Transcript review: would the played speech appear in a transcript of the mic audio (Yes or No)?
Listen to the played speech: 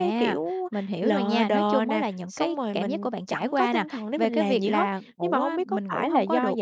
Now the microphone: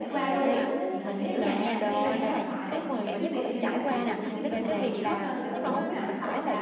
Yes